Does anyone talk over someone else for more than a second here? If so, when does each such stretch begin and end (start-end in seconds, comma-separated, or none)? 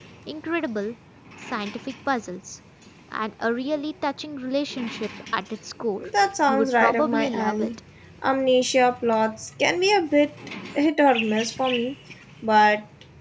6.5-7.7